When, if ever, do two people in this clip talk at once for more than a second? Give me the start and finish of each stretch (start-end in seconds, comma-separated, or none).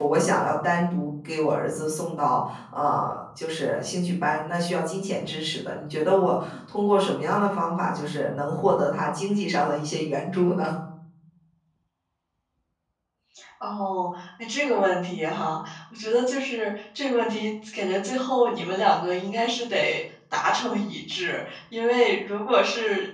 none